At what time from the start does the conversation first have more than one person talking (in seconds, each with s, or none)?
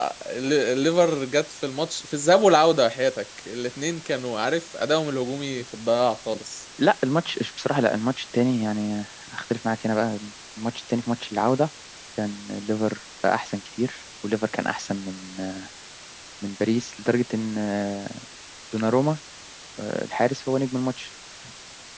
none